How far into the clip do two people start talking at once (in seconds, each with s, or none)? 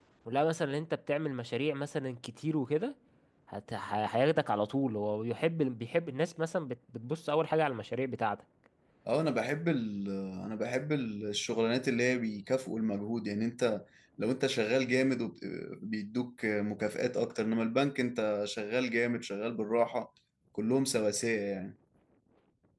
none